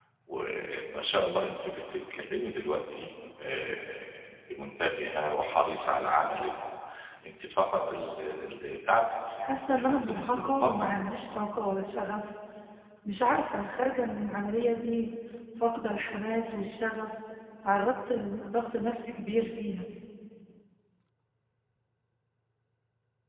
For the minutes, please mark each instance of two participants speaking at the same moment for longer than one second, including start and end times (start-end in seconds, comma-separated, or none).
9.4-10.9